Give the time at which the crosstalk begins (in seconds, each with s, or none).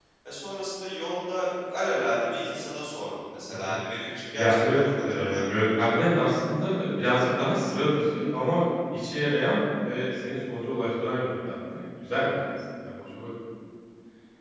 4.3 s